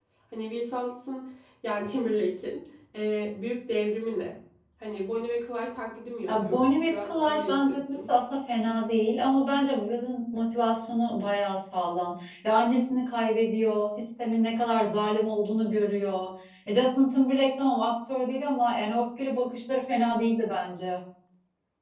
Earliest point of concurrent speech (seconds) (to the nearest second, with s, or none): 6 s